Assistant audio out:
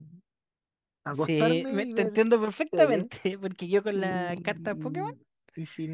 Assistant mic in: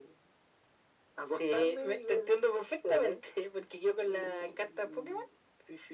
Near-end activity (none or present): none